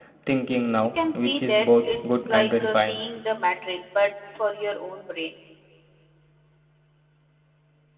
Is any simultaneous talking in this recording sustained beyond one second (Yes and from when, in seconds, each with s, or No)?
Yes, from 1.0 s